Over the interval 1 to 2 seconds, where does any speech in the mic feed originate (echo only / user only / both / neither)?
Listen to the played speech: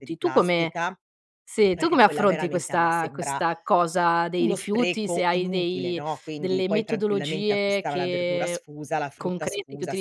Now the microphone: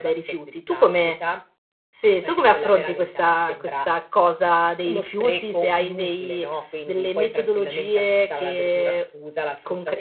echo only